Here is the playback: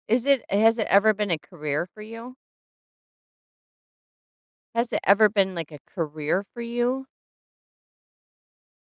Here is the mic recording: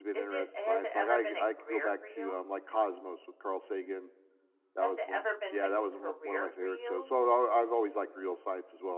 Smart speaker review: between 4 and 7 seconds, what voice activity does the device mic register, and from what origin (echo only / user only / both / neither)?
both